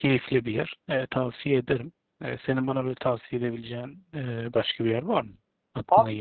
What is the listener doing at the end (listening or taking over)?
taking over